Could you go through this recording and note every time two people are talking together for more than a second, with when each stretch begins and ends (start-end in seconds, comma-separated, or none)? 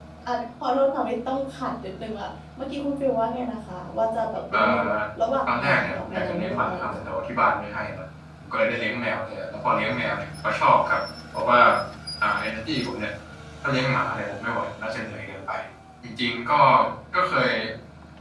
5.5-7.1